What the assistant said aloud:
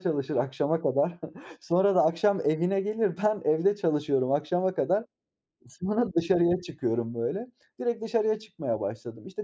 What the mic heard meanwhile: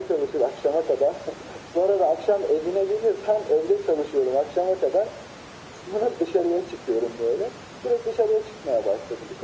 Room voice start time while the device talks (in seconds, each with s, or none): none